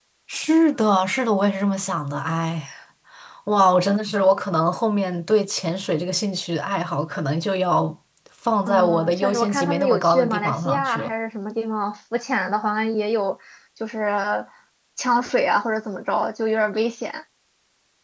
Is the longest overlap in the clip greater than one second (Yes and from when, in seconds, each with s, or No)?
Yes, from 8.7 s